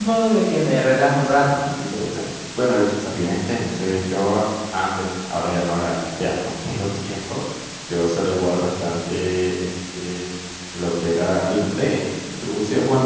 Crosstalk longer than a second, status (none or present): none